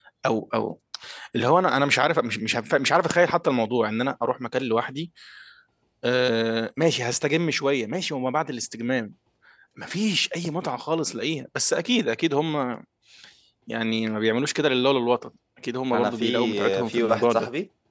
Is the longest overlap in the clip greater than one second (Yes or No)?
Yes